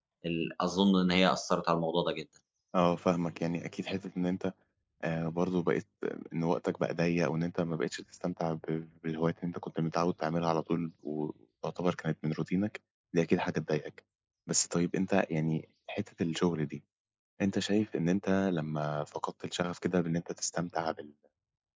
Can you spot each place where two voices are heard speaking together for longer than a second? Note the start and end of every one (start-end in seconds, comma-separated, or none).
none